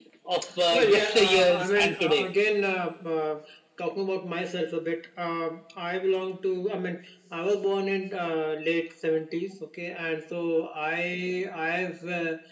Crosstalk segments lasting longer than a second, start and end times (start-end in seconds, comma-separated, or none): 0.7-2.2